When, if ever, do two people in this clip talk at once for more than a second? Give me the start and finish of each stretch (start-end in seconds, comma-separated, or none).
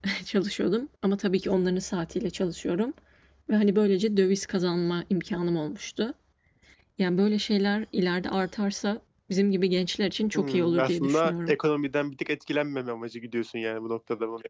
10.3-11.5